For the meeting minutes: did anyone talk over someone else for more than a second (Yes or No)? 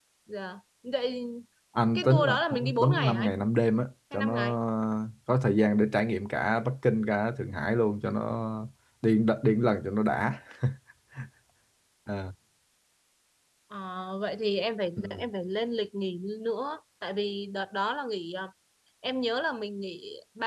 Yes